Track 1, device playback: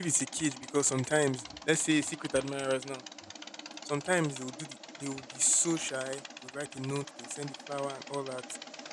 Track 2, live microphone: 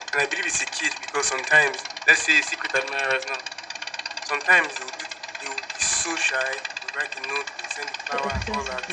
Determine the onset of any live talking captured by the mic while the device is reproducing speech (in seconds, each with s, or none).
8.0 s